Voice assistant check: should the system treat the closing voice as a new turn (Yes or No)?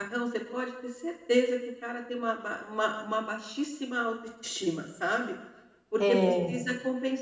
No